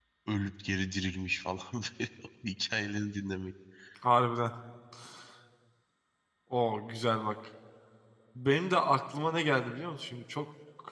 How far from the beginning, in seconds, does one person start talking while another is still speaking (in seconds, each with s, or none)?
none